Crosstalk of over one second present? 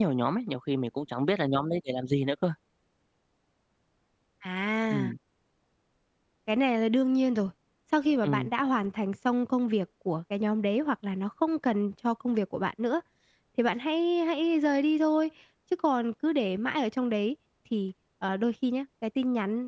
No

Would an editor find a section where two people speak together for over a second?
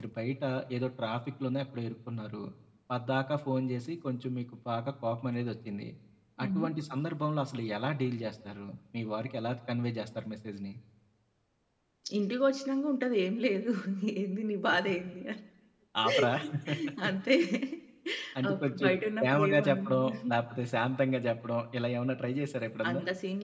Yes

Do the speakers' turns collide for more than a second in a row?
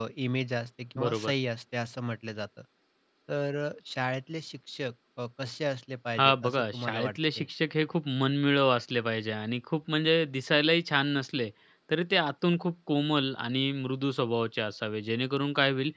Yes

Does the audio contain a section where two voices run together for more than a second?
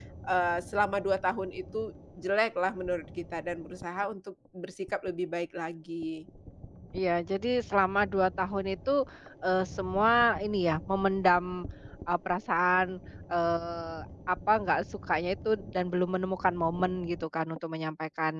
No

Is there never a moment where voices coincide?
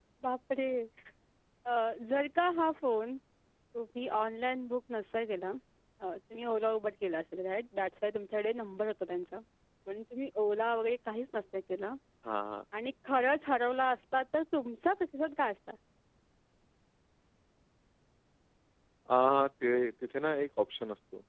Yes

